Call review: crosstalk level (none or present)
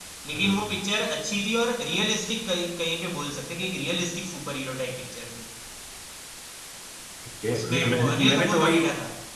present